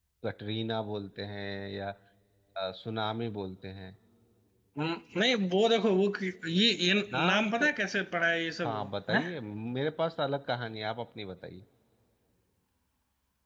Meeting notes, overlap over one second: none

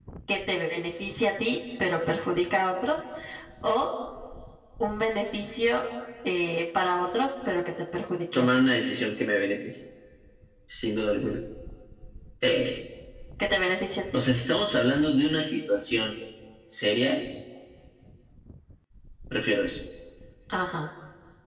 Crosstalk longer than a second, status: none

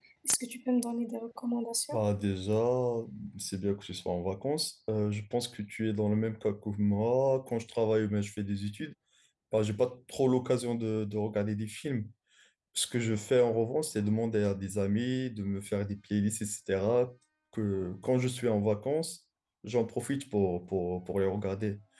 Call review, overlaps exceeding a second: none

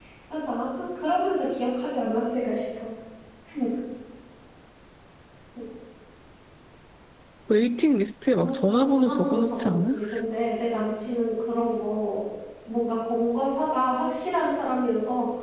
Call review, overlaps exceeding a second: present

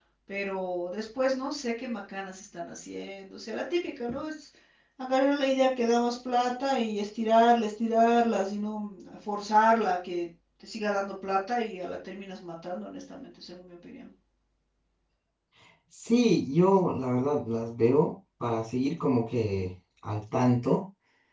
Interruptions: none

